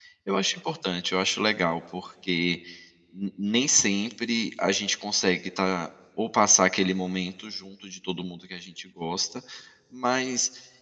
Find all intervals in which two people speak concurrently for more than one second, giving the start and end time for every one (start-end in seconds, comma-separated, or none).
none